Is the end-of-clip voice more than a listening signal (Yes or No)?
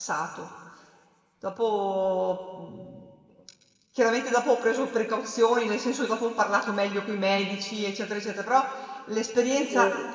No